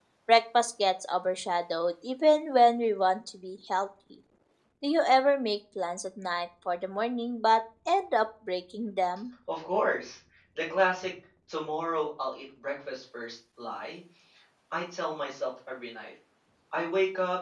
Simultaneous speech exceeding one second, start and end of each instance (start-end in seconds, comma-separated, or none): none